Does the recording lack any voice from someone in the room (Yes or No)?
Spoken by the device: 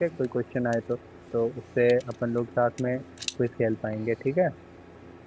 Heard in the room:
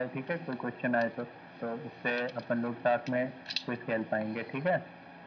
Yes